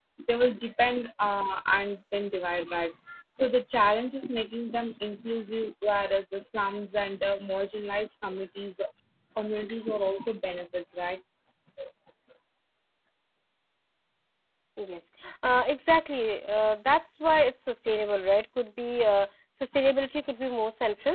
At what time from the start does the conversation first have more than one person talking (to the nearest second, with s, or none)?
none